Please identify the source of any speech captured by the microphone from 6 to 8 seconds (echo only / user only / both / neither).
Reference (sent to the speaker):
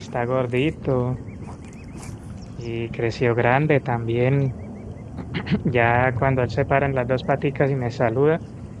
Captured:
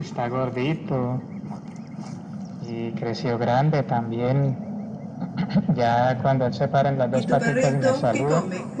both